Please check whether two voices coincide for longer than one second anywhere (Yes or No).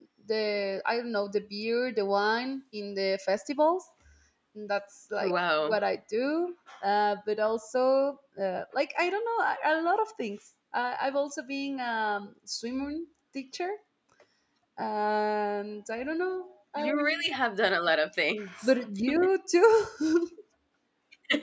No